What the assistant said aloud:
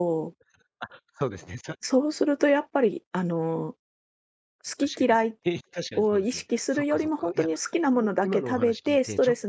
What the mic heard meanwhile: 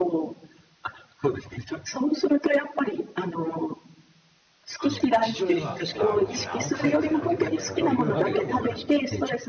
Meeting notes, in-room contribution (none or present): present